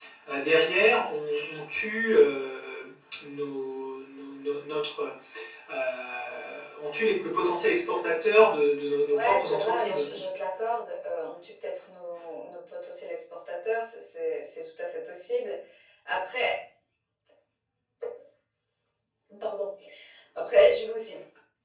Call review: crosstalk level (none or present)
present